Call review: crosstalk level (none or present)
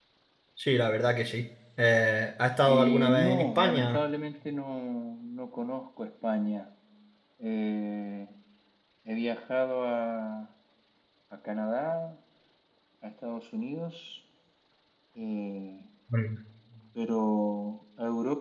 present